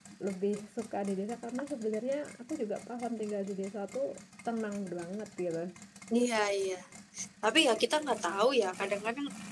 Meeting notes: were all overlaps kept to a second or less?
Yes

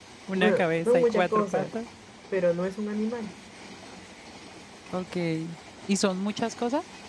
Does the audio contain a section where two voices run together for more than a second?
Yes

